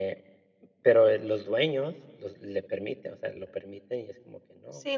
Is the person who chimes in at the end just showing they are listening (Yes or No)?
No